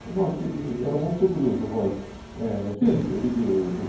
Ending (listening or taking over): listening